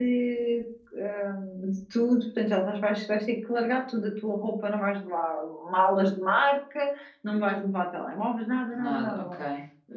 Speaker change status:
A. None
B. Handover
A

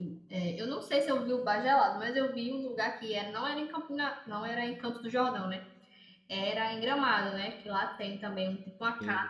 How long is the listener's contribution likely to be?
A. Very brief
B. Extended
A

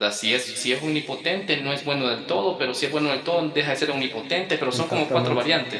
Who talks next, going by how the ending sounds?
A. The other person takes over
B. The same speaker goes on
A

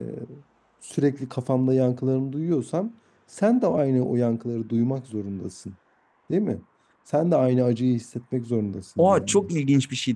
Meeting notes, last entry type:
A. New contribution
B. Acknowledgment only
A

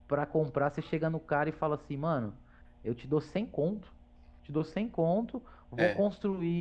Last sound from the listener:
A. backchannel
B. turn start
A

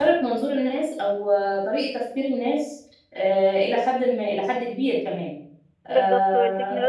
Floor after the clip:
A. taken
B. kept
A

